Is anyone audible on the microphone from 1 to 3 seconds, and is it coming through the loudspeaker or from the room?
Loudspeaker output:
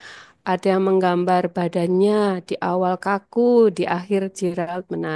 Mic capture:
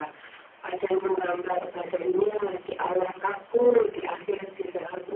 echo only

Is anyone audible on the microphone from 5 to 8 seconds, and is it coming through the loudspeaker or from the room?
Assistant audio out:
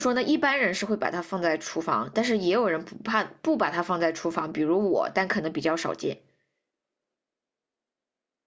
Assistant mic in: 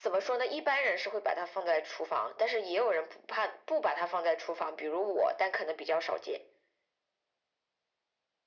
echo only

